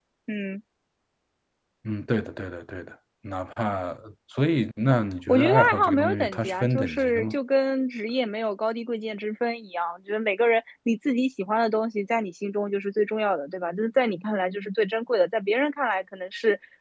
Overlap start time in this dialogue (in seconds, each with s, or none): 5.3 s